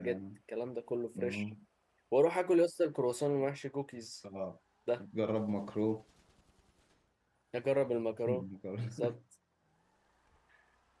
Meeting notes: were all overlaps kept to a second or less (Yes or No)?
Yes